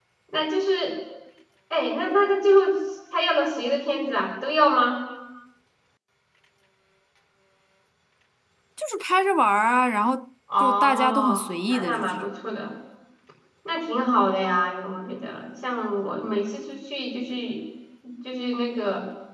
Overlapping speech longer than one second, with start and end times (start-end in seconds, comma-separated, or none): 10.6-12.3